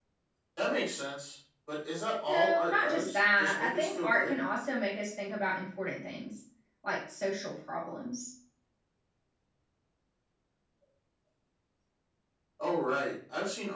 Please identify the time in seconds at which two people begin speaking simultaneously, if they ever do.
2 s

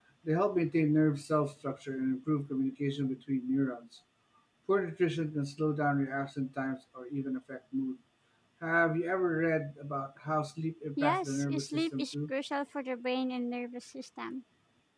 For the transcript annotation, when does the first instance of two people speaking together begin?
11 s

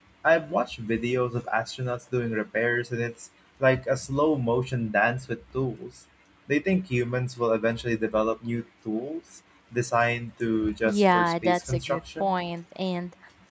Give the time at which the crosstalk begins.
11 s

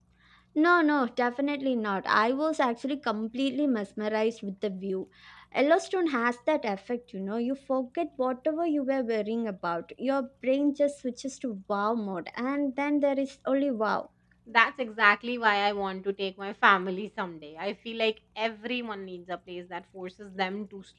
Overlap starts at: none

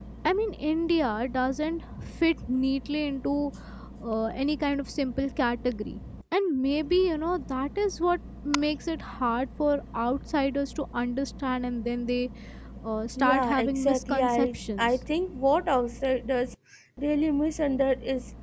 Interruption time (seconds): 13 s

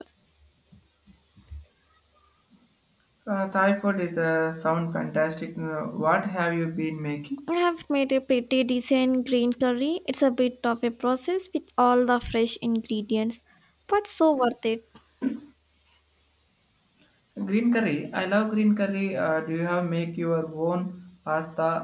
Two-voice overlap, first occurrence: none

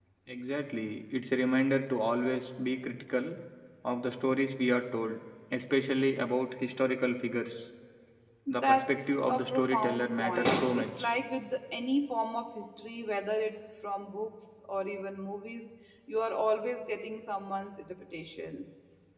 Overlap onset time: 9 s

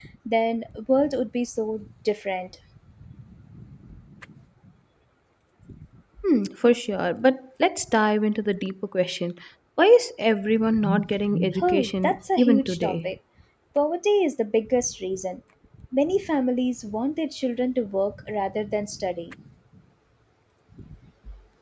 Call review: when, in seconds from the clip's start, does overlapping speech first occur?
12 s

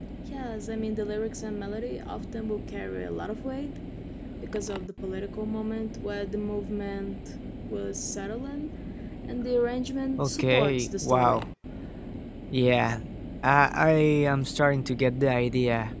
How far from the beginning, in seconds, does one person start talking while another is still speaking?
10 s

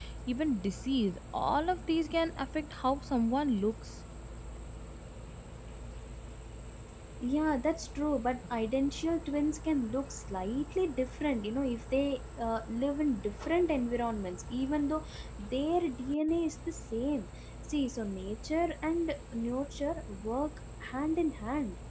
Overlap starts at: none

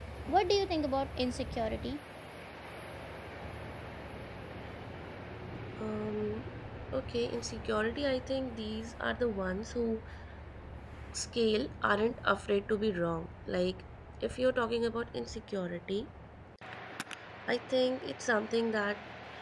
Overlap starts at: none

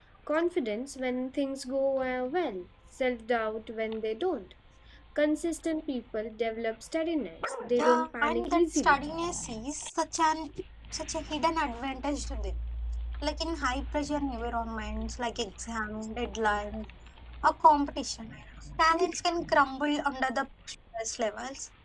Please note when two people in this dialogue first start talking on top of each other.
8 s

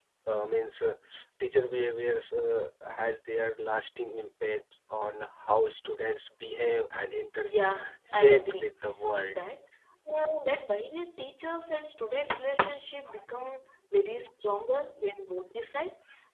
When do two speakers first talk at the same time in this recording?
7 s

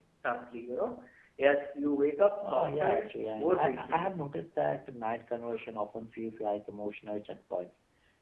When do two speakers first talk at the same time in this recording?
2 s

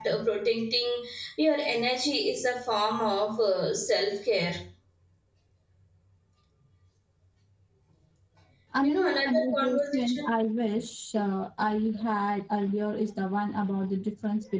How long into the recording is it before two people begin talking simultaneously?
9 s

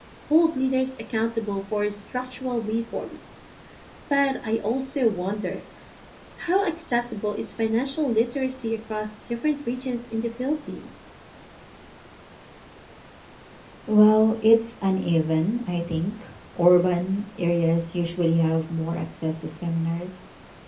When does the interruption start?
none

